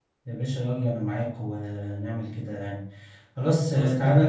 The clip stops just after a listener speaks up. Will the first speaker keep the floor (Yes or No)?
Yes